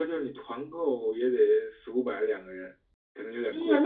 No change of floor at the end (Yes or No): No